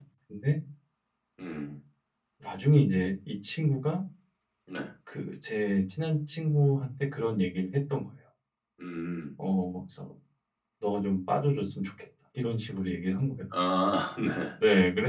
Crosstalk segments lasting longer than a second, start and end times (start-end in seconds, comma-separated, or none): none